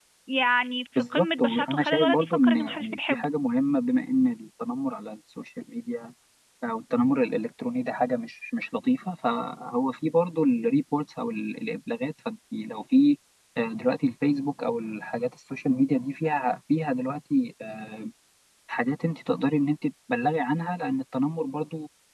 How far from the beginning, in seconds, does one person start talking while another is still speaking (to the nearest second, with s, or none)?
1 s